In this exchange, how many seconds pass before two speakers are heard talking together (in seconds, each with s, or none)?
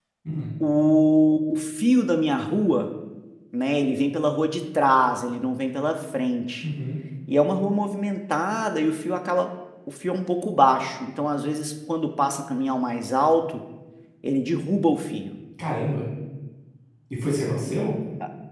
none